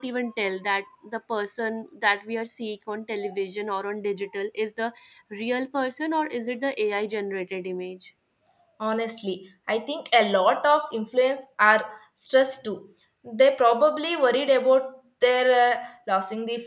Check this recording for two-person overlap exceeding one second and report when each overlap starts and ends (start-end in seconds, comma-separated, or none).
none